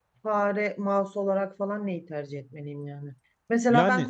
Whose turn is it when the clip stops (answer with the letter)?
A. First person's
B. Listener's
A